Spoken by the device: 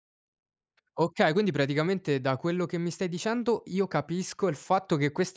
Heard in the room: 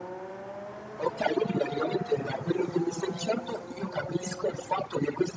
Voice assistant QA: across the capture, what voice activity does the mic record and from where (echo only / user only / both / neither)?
echo only